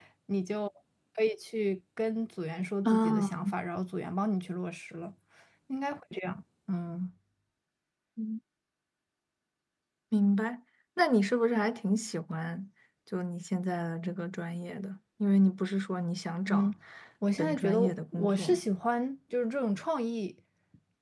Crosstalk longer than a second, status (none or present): present